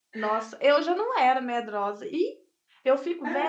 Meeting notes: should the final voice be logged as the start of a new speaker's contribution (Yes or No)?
No